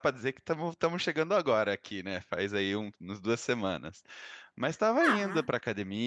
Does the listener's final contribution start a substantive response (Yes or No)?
No